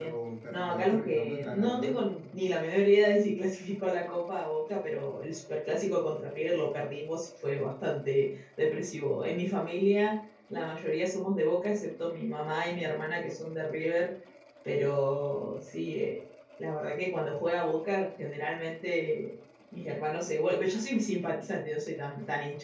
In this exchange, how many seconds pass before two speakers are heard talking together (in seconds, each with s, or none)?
0.5 s